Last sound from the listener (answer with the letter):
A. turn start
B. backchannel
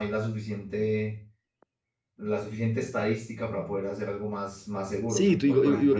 A